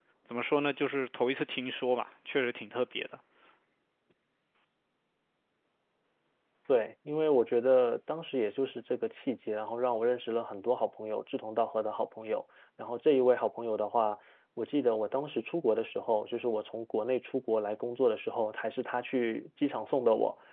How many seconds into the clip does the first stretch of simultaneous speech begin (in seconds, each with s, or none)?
none